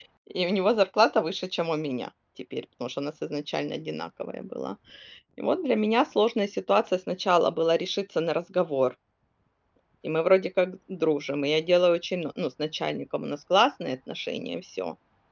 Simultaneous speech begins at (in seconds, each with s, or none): none